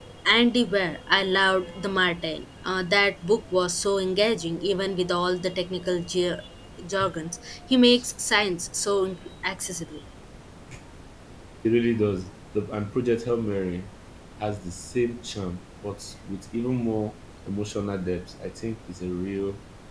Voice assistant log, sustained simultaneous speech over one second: none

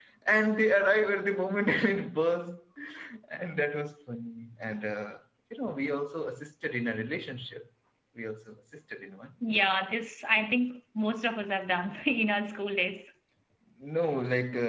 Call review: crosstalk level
none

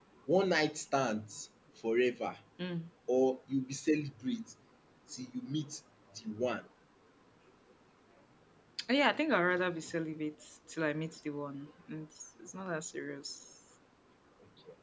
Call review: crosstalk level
none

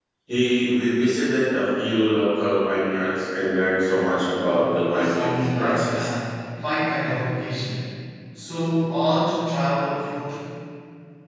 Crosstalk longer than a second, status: present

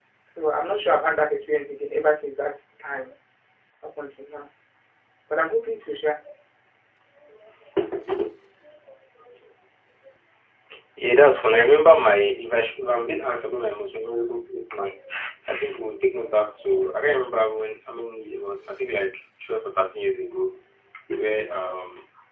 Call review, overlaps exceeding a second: none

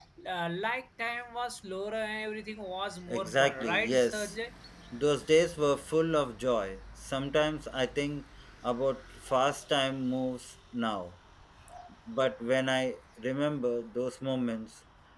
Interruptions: present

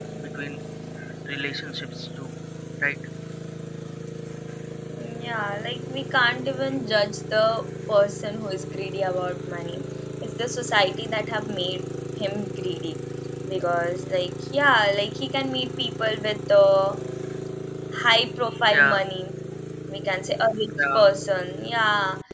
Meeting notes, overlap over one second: none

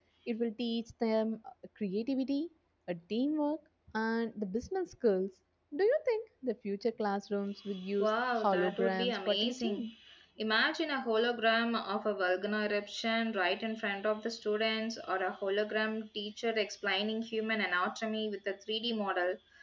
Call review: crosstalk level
present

